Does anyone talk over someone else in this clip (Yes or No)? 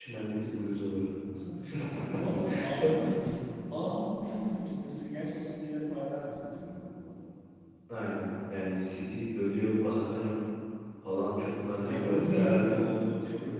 Yes